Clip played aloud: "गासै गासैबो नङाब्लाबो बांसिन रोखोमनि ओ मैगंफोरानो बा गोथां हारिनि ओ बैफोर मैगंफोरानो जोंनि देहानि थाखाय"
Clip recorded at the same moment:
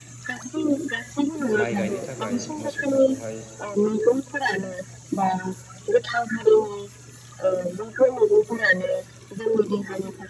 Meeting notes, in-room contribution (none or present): present